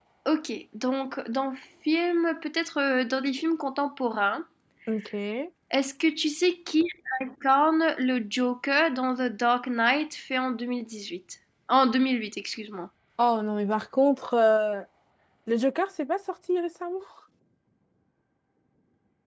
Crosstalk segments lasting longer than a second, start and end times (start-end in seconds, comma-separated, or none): none